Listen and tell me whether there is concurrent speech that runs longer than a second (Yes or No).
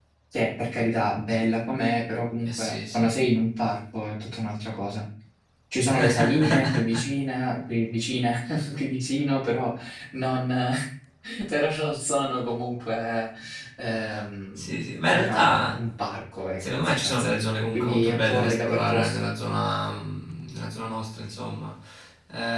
Yes